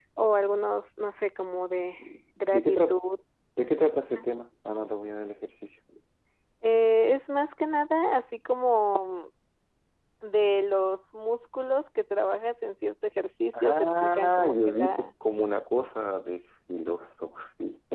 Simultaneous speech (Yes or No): Yes